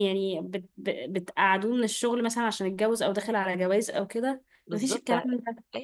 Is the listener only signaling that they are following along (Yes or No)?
No